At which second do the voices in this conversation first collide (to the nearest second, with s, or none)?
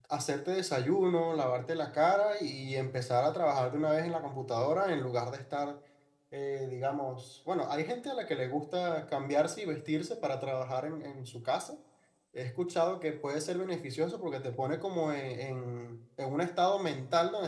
none